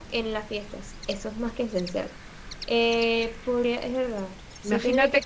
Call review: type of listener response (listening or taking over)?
taking over